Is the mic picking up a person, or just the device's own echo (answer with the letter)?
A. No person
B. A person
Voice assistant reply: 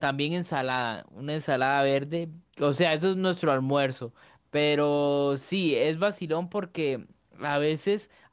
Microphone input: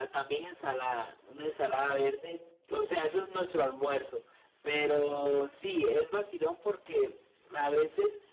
A